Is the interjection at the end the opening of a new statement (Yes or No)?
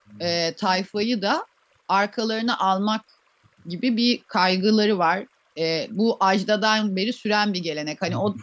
No